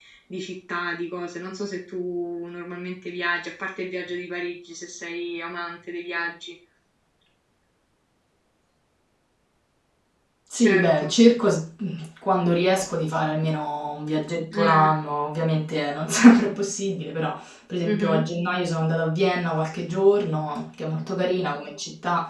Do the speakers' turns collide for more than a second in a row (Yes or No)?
No